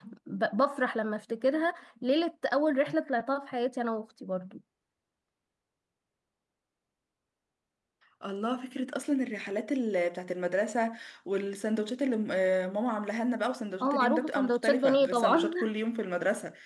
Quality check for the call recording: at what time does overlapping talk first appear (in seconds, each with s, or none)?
13.8 s